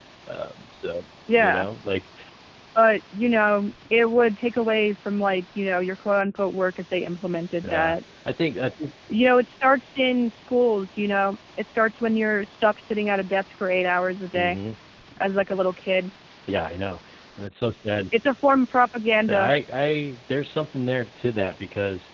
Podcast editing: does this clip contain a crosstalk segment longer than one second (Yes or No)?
No